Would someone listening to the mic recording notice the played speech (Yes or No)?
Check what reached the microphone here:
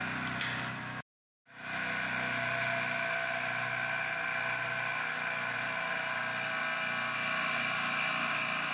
No